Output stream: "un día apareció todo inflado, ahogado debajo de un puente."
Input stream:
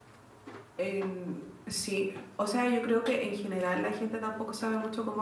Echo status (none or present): none